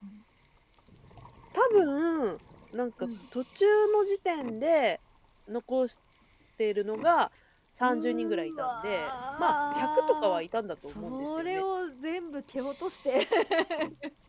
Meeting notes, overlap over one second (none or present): present